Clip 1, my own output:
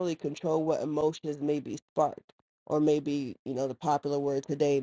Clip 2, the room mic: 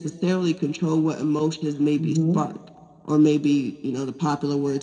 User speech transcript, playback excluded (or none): Mm-hmm.